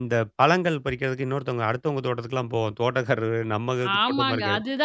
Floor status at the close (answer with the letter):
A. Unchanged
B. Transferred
B